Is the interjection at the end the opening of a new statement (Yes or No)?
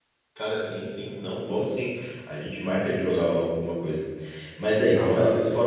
No